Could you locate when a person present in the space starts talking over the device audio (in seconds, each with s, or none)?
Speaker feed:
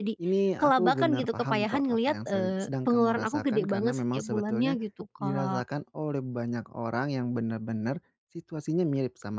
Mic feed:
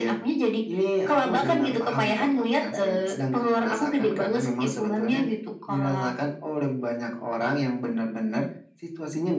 none